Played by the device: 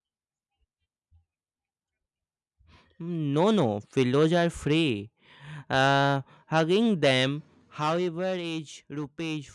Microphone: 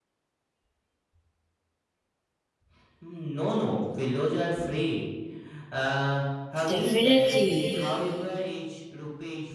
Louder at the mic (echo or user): user